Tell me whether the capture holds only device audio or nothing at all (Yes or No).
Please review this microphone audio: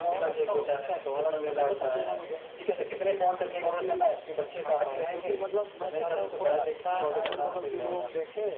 Yes